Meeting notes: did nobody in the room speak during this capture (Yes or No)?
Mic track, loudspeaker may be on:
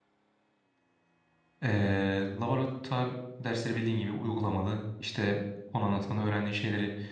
No